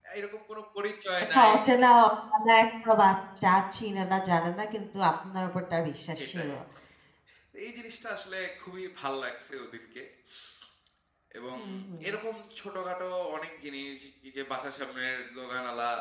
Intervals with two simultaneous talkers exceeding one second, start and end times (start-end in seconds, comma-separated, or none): none